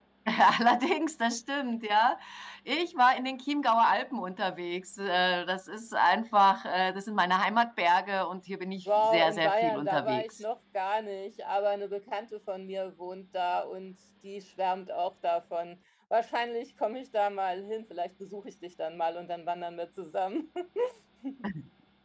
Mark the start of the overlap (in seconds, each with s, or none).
8.9 s